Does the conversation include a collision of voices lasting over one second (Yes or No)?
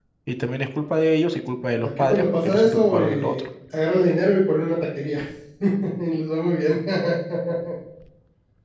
Yes